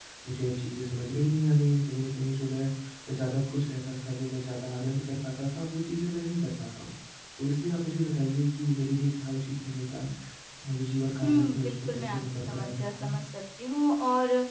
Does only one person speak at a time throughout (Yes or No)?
No